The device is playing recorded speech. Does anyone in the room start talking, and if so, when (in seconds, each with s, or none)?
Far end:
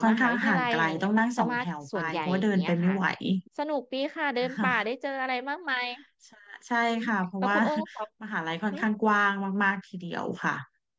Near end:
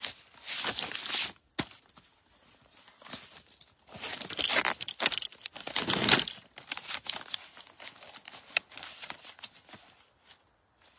none